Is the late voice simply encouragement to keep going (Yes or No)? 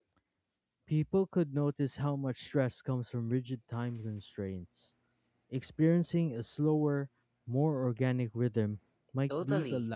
No